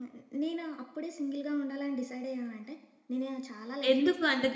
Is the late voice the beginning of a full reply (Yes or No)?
Yes